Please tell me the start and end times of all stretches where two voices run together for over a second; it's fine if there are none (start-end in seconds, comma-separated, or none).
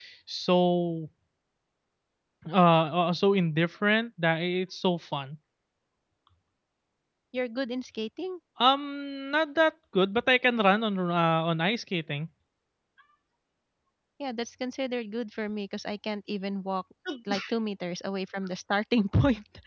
none